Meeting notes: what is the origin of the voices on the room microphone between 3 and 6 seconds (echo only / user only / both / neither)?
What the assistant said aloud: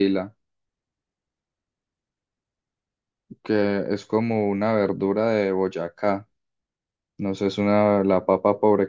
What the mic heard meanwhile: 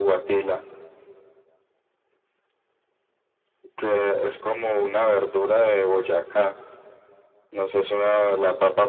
echo only